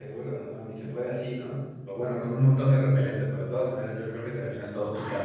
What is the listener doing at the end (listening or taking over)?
taking over